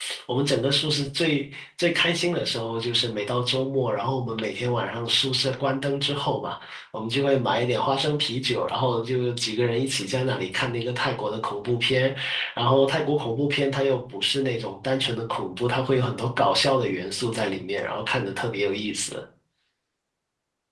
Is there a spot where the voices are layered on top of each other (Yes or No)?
No